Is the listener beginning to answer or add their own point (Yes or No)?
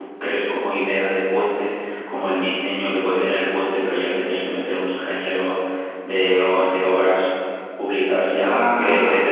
No